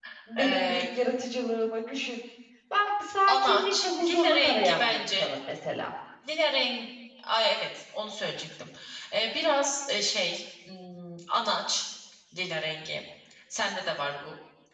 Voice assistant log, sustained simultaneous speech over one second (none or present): present